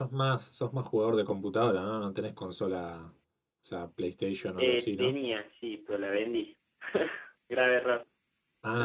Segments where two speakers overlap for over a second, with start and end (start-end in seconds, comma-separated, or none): none